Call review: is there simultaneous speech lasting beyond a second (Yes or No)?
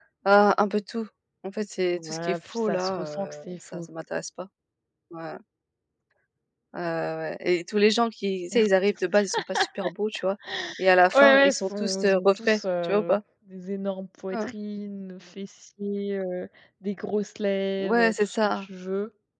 Yes